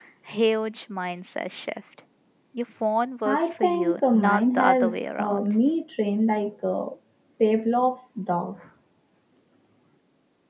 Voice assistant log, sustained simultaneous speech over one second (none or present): present